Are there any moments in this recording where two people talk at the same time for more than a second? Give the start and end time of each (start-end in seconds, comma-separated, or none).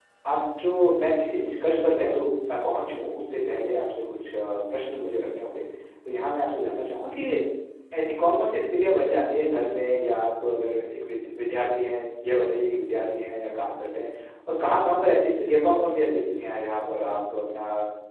none